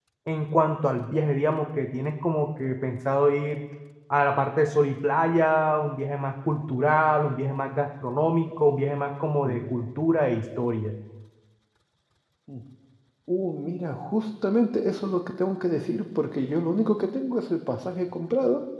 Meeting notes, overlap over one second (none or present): none